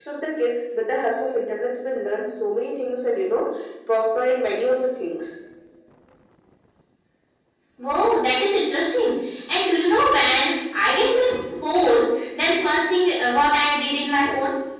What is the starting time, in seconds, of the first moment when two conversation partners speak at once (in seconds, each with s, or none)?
none